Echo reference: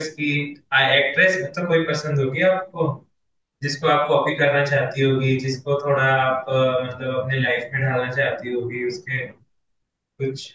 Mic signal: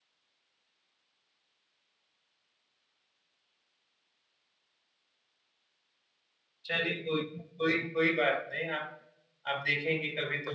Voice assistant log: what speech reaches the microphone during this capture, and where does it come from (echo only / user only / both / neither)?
user only